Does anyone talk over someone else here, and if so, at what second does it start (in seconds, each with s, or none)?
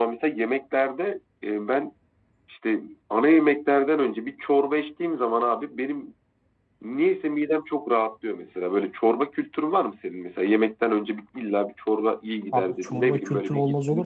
12.5 s